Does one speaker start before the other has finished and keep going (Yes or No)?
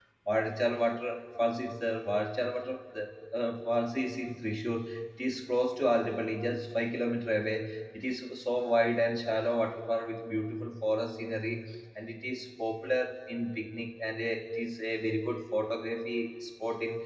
No